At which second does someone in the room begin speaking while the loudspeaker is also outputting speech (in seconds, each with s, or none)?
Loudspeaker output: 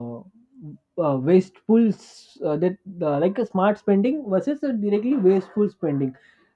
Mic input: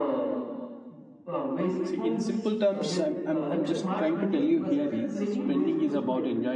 1.8 s